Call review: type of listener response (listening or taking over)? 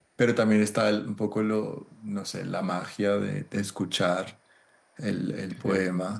taking over